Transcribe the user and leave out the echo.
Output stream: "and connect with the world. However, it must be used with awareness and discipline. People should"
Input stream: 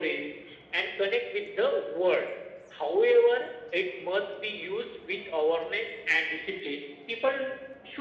none

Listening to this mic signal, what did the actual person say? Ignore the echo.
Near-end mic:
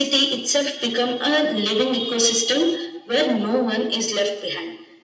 none

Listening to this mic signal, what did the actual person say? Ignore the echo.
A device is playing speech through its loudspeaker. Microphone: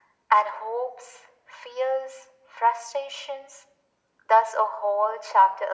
none

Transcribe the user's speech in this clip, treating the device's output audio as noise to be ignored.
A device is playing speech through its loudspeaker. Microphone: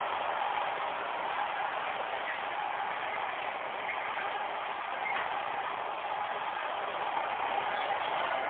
none

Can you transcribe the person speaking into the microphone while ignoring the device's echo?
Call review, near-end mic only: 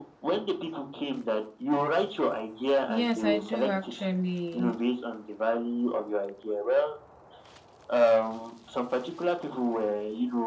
Yes, I do actually.

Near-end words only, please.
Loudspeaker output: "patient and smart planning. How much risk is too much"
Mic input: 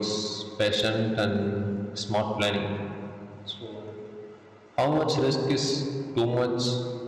none

